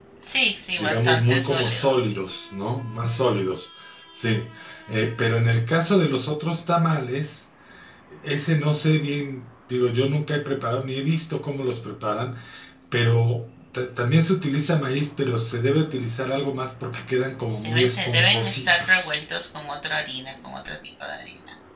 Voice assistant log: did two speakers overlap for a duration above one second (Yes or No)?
Yes